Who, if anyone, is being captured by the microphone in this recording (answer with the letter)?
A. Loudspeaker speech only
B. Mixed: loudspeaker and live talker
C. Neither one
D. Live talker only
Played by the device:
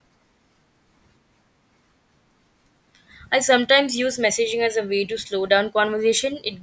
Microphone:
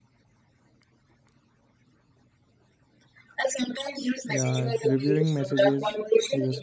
B